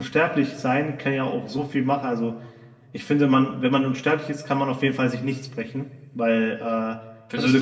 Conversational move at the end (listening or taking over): listening